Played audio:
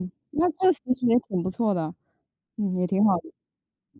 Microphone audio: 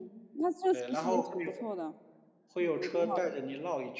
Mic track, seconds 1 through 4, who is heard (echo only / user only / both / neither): both